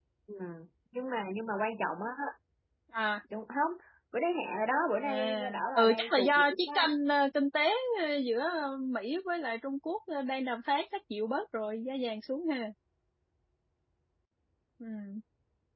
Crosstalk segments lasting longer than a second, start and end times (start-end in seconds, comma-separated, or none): 5.0-6.9